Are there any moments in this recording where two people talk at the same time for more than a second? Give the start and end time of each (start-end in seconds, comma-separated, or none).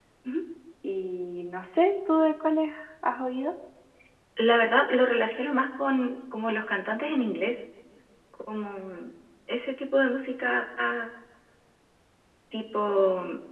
none